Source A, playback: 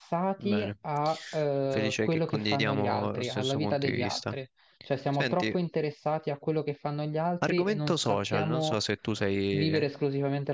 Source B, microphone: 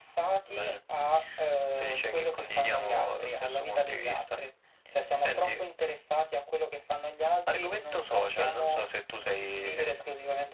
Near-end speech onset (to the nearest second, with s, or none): none